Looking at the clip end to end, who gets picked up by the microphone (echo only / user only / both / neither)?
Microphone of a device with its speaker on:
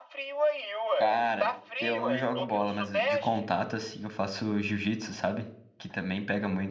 both